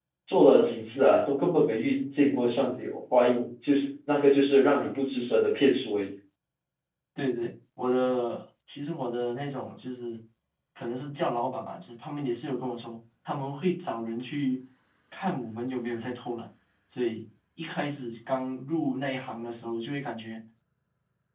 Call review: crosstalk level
none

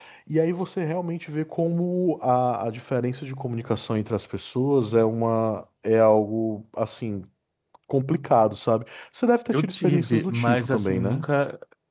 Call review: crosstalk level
present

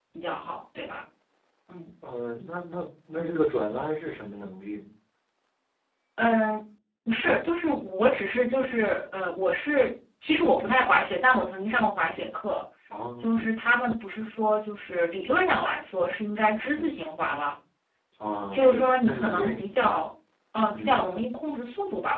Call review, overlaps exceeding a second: present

